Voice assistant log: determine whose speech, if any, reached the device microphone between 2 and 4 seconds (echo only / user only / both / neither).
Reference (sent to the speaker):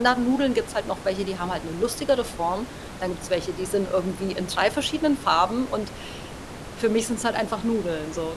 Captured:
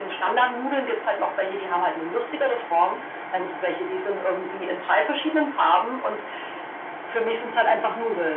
echo only